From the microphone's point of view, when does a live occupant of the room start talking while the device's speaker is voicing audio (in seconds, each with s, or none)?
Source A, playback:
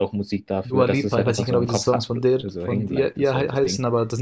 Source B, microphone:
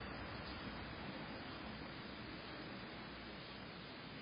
none